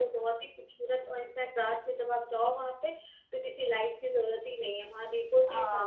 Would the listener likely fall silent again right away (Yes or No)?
No